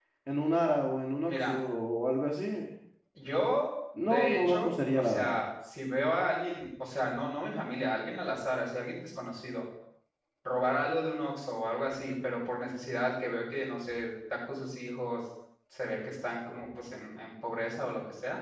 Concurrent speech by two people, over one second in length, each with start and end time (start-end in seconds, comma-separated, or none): 4.0-5.4